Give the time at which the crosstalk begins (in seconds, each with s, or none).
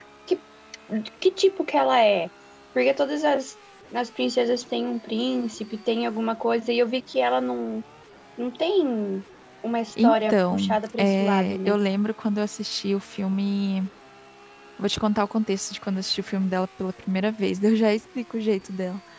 10.0 s